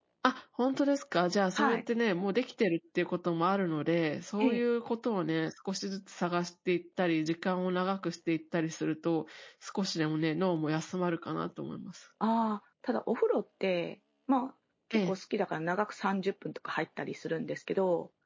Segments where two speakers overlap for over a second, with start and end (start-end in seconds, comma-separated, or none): none